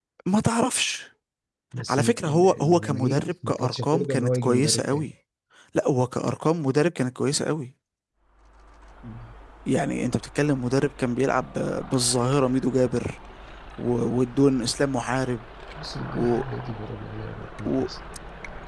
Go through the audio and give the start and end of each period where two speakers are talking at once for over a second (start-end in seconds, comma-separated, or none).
1.9-5.1